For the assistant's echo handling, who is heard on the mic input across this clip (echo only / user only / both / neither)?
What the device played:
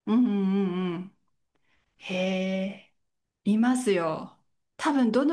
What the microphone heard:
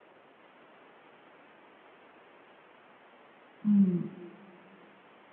user only